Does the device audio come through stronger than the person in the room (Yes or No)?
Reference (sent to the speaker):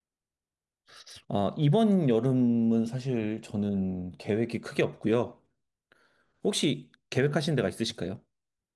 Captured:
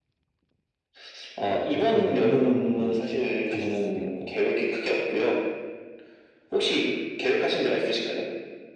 Yes